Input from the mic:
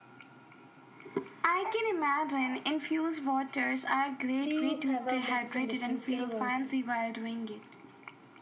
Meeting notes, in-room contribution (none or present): present